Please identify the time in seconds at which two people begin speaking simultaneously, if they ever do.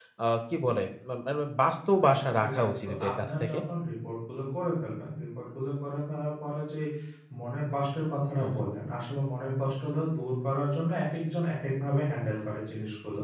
2.0 s

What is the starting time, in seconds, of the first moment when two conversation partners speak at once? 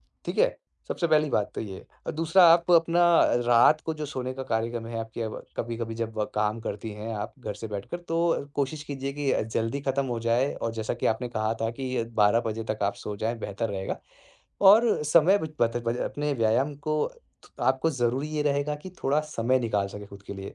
none

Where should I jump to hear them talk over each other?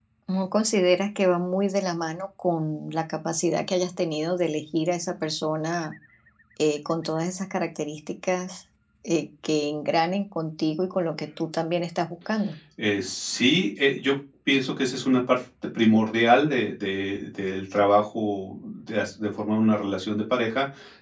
none

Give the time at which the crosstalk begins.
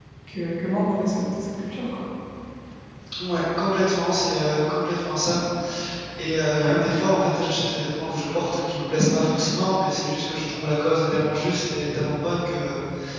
none

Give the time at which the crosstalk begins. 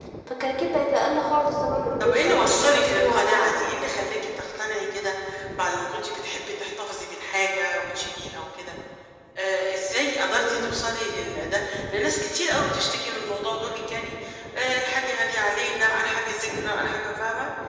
2.0 s

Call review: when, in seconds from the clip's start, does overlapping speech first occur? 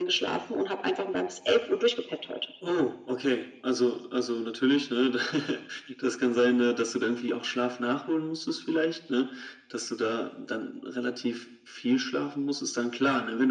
none

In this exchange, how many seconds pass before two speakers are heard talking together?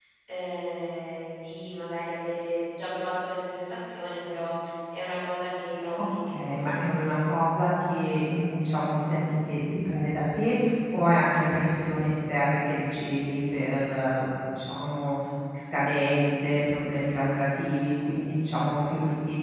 6.0 s

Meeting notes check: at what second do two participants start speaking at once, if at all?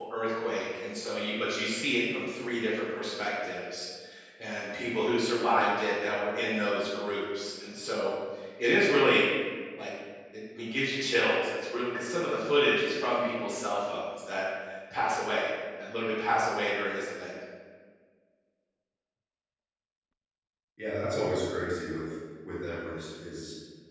none

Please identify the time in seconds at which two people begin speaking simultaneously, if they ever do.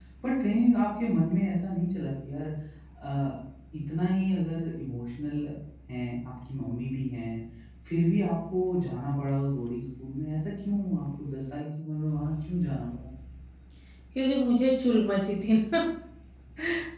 none

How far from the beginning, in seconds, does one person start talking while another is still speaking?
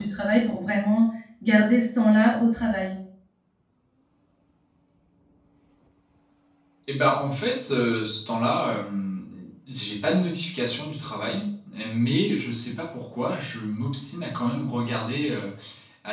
none

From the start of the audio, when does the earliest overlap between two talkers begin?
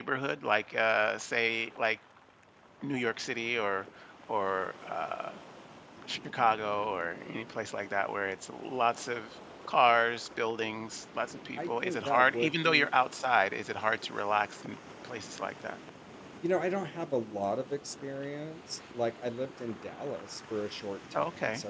11.6 s

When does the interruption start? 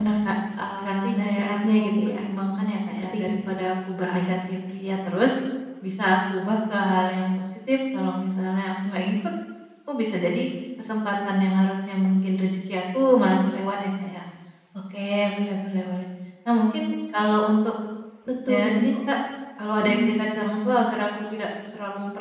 0.8 s

